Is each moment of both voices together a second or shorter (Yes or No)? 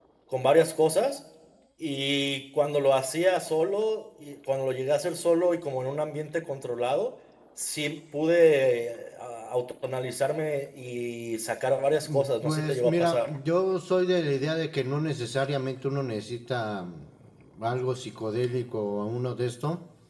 No